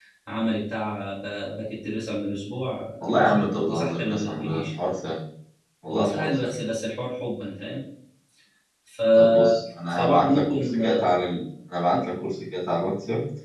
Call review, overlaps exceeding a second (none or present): present